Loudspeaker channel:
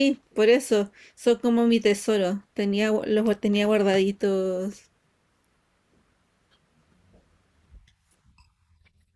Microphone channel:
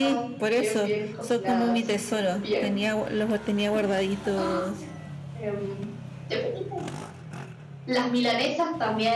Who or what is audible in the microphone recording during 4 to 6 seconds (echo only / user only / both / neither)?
both